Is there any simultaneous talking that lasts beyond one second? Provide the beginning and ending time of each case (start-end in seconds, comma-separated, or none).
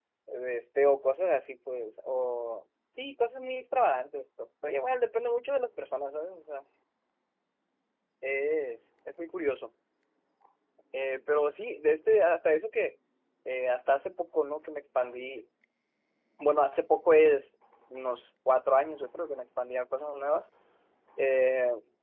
none